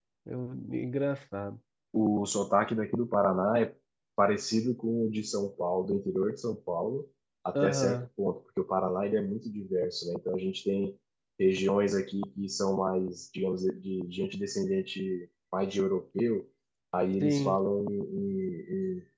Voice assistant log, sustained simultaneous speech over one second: none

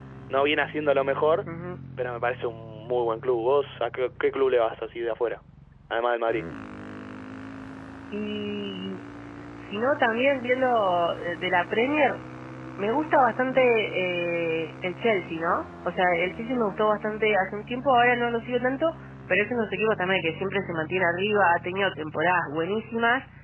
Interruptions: none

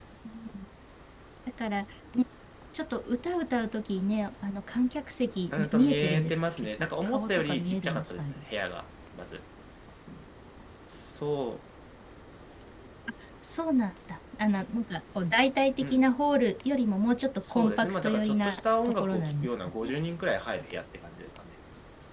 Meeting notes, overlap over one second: present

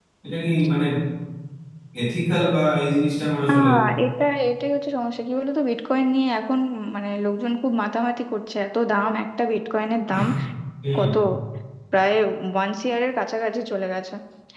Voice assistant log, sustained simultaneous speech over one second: none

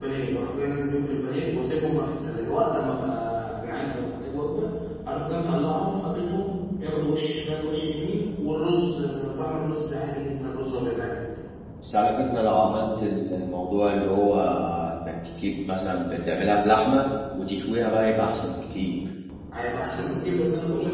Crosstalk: none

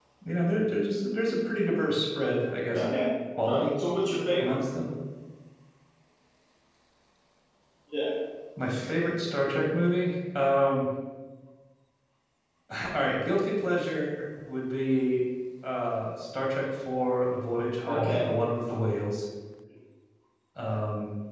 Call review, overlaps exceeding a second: none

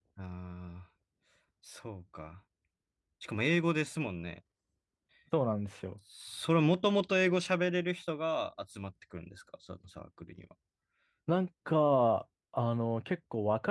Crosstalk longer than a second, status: none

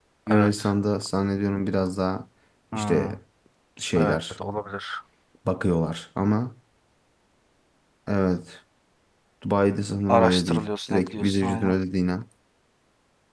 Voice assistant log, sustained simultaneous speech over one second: present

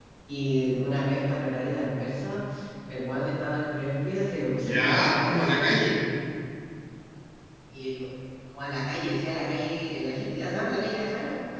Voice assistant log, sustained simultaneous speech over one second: present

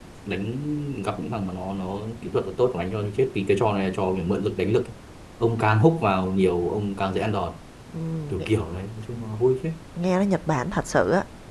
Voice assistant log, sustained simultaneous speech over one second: none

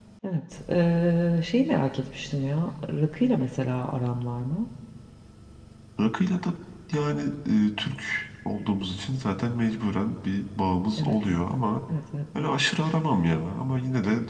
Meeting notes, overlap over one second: none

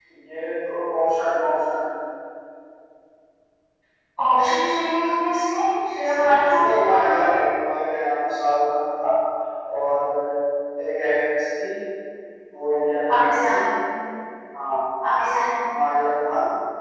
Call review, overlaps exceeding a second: present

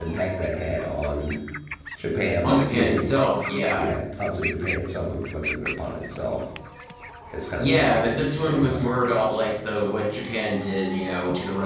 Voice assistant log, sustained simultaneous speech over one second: present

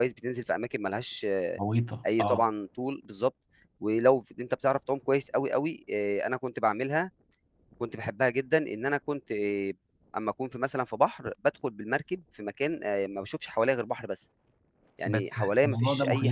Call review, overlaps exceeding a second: present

